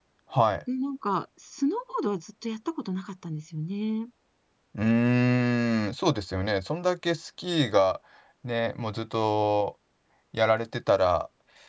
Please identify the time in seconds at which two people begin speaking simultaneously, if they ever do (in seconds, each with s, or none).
none